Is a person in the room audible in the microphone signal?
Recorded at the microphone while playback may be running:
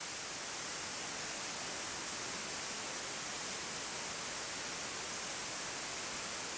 No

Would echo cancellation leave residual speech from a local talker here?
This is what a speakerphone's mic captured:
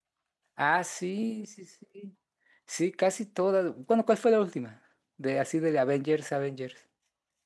Yes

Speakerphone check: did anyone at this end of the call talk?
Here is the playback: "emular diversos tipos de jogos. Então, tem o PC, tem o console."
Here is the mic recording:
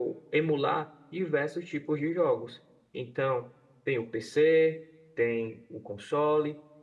No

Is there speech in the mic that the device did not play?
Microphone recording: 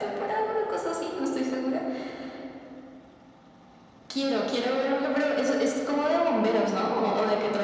No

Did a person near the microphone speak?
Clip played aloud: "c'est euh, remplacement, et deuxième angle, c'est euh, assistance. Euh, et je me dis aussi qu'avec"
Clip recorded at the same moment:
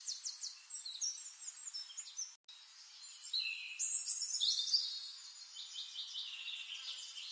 No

